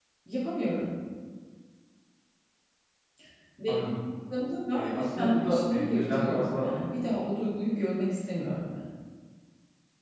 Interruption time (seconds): 4.7 s

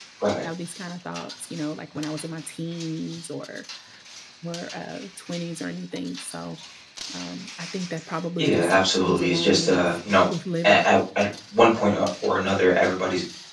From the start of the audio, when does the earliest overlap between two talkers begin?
8.4 s

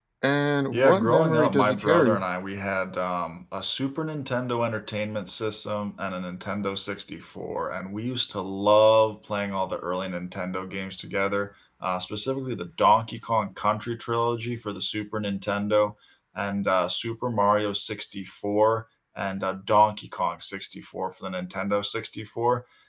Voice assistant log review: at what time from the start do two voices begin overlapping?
0.7 s

